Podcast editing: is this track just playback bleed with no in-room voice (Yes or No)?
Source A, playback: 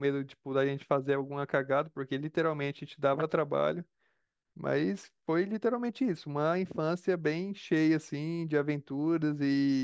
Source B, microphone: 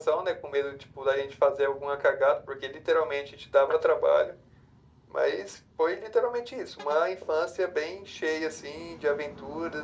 Yes